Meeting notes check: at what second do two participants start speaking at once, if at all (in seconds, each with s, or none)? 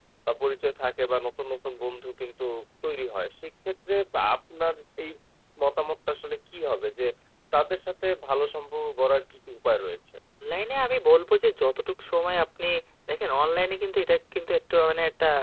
none